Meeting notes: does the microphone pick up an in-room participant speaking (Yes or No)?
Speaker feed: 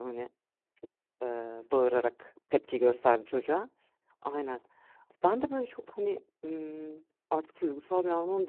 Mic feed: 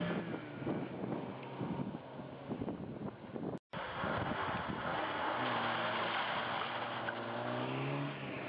No